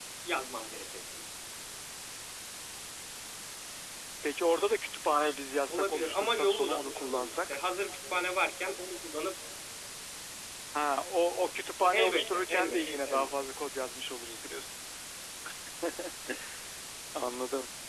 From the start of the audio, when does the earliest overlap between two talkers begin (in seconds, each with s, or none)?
5.7 s